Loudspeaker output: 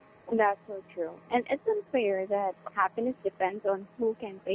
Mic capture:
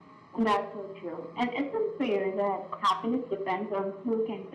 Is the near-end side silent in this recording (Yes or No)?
Yes